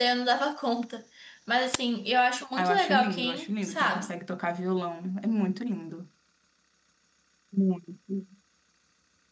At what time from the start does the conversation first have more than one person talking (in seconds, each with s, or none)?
2.5 s